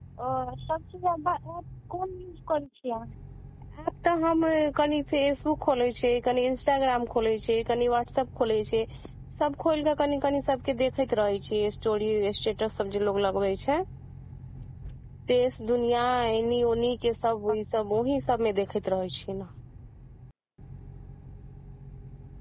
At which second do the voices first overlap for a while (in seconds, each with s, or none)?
none